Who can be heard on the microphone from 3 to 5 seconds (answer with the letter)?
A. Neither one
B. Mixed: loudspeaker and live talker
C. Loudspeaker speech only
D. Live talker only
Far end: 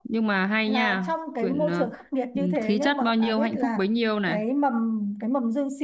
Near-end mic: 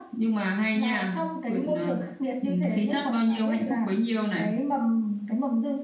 C